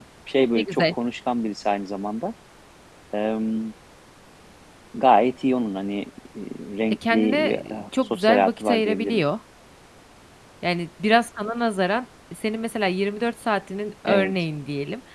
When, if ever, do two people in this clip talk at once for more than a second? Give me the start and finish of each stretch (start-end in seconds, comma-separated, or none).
6.9-9.2